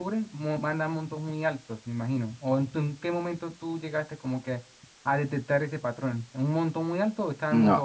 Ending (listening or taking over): taking over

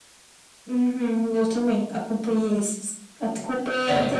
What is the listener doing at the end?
listening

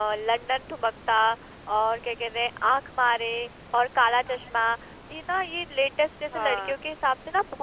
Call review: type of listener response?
listening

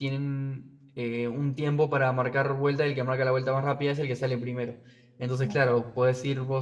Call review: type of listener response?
listening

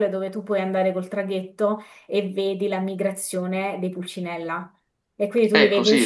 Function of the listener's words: listening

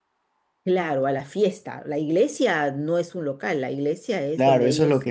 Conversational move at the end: taking over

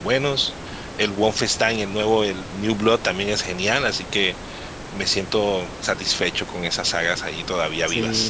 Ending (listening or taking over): taking over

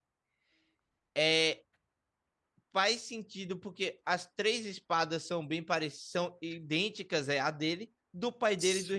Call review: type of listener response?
listening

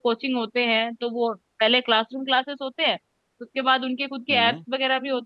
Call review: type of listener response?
listening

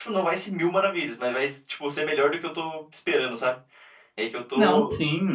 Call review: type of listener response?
taking over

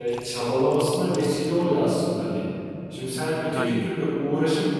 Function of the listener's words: listening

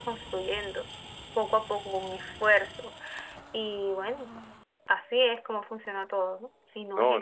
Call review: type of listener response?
taking over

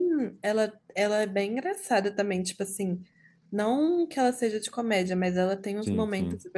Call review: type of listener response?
listening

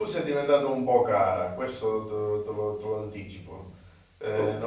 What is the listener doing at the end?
listening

